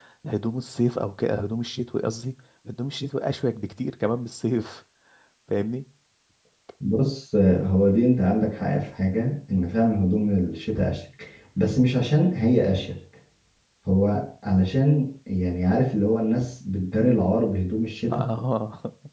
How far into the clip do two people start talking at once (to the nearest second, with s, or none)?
none